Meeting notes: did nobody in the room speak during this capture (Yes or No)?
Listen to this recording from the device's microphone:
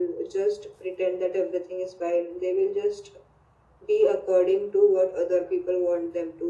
Yes